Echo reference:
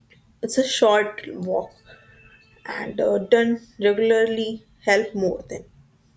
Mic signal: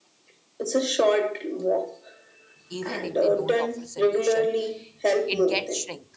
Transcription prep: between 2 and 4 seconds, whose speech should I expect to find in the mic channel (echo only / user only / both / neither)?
both